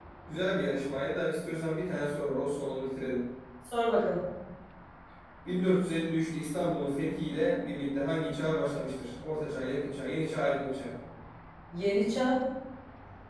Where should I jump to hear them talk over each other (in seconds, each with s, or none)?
none